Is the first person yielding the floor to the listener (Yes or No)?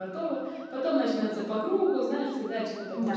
Yes